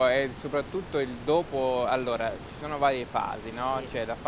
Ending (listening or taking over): listening